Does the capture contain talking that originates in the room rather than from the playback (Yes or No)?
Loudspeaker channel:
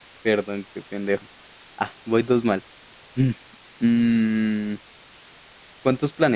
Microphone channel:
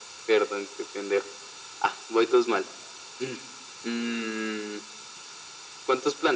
No